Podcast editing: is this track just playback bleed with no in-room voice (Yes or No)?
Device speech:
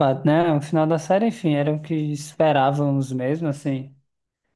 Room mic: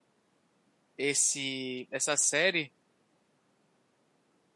No